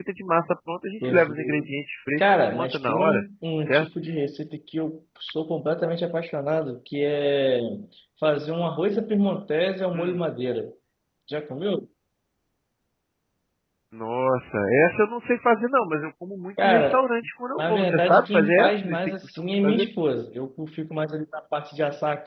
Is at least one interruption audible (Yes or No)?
Yes